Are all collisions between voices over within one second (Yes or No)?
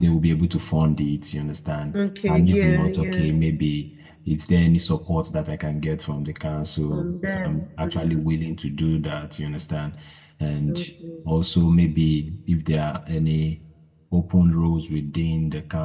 No